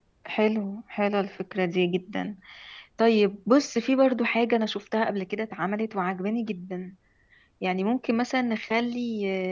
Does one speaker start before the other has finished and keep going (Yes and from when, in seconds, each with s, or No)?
No